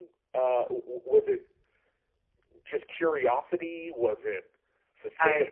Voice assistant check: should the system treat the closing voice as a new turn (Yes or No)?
No